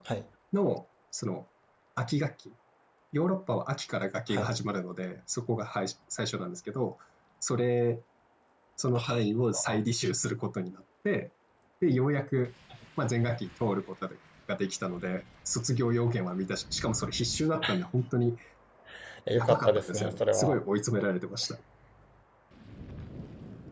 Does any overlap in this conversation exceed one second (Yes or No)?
Yes